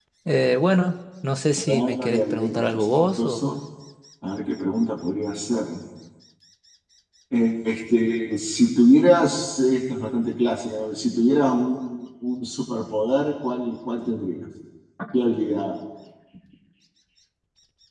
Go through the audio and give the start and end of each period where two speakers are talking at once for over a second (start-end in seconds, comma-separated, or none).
1.6-3.5